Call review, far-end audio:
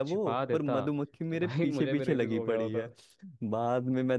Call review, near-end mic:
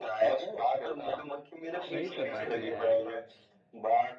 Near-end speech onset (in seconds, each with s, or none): 1.9 s